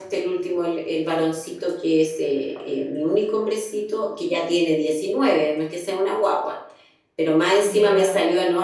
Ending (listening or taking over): listening